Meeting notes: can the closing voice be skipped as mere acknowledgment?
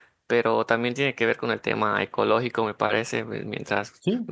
Yes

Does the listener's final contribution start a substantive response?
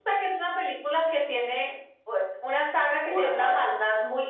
No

